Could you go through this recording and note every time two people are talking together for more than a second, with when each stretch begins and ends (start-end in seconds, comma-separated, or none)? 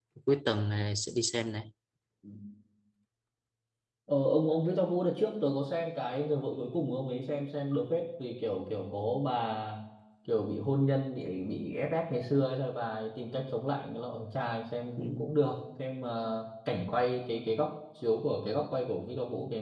none